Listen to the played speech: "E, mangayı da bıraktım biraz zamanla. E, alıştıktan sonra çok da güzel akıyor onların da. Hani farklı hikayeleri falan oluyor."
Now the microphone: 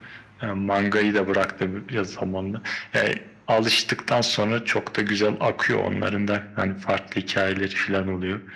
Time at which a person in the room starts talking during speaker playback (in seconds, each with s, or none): none